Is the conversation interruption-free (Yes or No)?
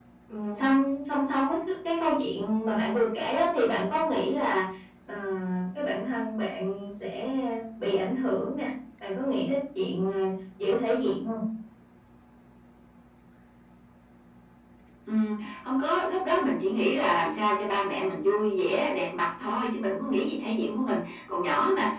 Yes